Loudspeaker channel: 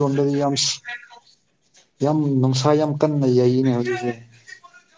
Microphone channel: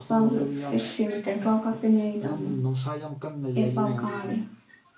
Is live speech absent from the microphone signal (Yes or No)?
No